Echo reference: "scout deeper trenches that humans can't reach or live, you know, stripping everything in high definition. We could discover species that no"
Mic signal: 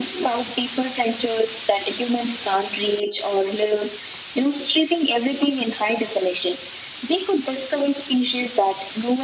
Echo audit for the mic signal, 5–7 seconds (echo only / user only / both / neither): echo only